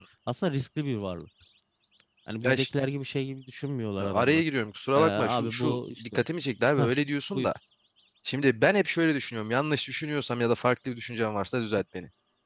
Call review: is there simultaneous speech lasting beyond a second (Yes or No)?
Yes